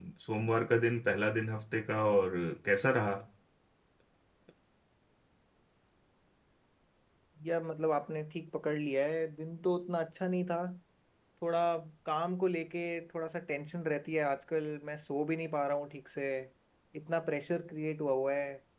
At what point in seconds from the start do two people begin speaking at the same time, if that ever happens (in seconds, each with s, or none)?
none